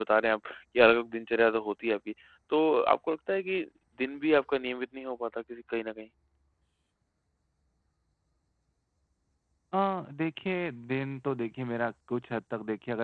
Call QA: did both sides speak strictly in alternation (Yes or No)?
Yes